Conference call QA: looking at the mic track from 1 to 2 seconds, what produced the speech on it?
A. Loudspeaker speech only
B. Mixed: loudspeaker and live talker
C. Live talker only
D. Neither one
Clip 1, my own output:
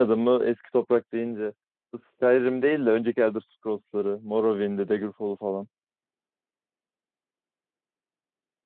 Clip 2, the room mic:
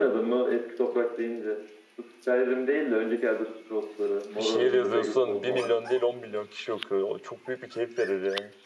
A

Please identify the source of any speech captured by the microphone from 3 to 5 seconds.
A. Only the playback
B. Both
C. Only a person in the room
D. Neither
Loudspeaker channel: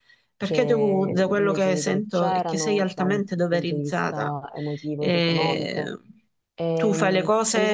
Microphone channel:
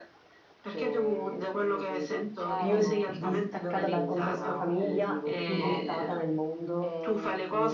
B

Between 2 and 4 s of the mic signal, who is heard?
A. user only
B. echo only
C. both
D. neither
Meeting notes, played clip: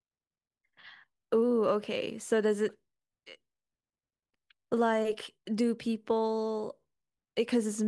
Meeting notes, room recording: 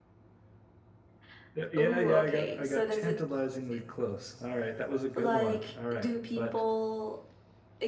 C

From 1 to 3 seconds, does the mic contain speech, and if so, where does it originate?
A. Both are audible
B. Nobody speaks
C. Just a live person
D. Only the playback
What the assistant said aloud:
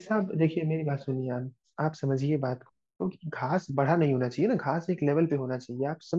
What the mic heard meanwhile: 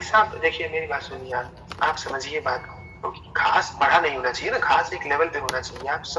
D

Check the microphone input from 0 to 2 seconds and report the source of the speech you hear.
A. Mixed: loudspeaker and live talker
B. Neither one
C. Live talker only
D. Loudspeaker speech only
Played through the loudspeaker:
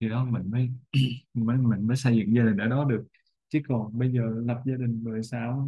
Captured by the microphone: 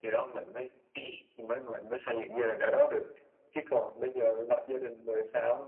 D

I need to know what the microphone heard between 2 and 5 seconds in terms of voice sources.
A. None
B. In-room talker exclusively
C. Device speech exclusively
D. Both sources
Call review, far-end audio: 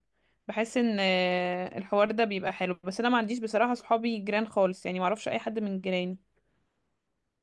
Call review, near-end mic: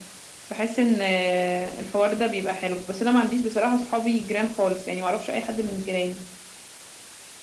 C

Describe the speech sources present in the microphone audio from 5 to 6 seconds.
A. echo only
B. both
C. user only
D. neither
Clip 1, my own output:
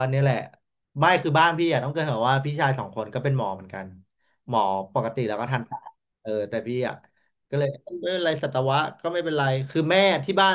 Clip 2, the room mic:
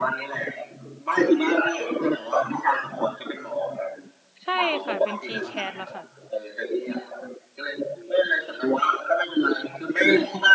B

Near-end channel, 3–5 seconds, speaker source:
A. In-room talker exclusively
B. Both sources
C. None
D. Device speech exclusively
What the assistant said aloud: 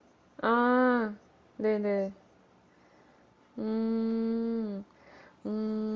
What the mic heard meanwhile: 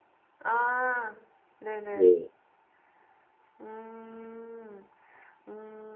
D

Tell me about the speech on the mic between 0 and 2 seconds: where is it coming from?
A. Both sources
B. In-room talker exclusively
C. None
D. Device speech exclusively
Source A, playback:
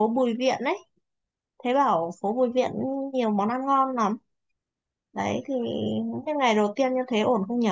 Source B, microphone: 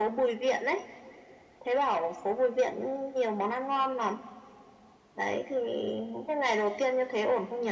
D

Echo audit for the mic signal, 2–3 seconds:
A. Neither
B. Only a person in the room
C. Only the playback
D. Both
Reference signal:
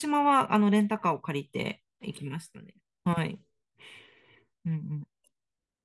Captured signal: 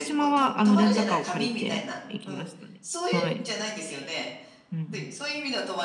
D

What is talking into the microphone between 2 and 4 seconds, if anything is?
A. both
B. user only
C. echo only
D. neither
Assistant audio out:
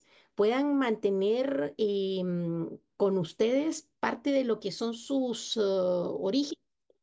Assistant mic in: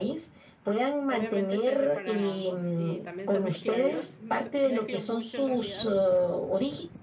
A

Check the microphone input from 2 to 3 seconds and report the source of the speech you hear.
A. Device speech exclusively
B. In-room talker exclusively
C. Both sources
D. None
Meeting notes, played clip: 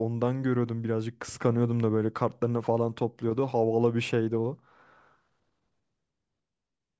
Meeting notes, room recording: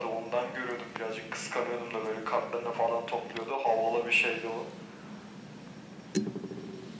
A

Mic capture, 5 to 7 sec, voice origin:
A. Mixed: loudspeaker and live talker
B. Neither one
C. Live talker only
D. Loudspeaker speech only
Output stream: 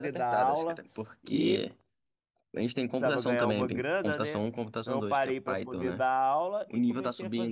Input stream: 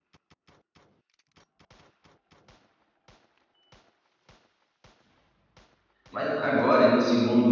C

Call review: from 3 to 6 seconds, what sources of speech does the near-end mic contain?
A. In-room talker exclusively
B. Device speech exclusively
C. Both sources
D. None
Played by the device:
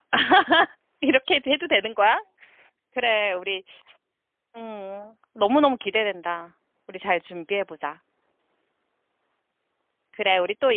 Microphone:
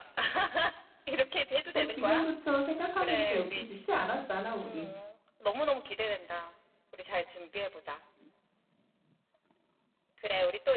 C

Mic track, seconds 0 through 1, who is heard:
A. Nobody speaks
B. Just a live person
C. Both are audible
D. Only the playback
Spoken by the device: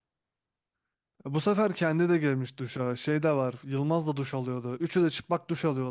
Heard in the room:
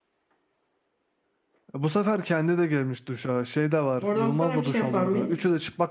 A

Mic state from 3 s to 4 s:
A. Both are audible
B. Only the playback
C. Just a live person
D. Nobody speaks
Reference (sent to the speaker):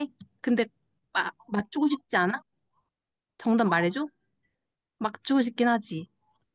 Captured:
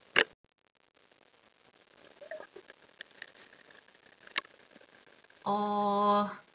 D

